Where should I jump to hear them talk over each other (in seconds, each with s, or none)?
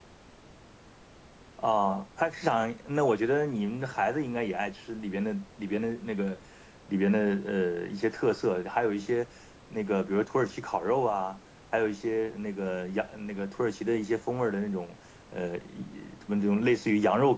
none